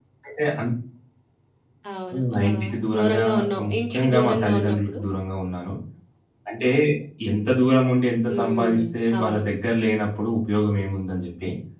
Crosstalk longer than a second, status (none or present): present